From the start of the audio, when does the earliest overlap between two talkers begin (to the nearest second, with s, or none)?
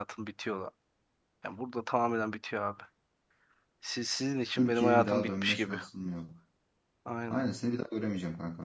5 s